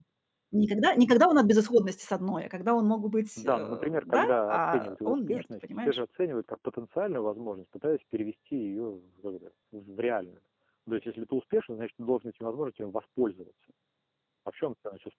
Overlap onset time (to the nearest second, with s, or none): 3 s